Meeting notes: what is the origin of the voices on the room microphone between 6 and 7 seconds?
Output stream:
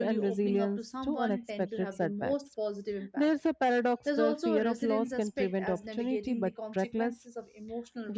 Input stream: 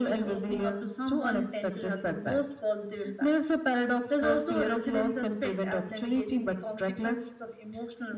echo only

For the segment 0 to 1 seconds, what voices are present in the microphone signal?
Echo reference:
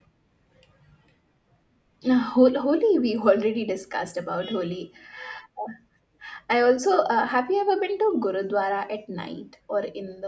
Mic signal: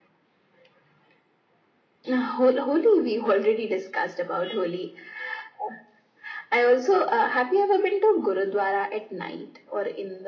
neither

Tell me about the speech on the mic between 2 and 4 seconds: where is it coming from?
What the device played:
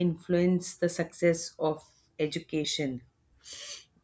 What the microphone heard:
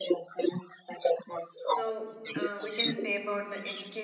both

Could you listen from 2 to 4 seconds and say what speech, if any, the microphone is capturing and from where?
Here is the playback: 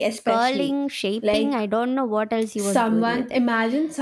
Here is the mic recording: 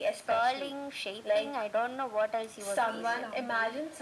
both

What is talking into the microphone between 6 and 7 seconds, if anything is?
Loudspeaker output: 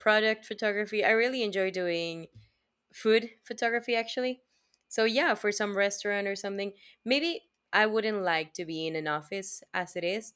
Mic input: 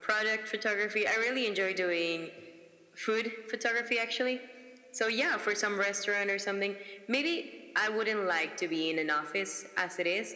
echo only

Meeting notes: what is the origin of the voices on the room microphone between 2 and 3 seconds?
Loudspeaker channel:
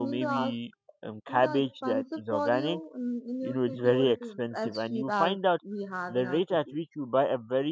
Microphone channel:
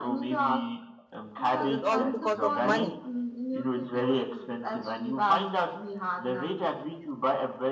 both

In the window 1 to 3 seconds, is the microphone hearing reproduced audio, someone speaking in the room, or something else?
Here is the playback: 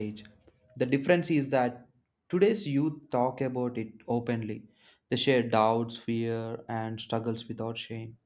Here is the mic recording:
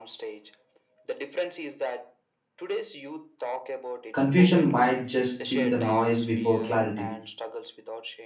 echo only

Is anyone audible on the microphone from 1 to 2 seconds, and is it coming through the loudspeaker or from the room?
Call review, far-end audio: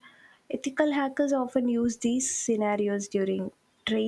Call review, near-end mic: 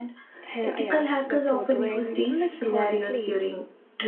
both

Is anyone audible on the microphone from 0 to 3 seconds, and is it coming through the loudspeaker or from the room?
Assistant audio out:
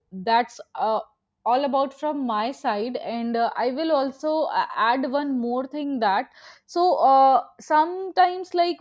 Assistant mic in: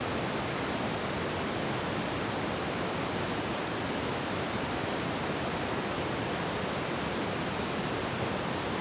neither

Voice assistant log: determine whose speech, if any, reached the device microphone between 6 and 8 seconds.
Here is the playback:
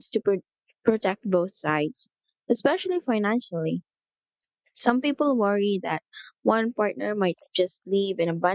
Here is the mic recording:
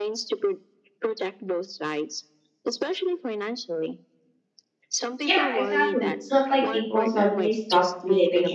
both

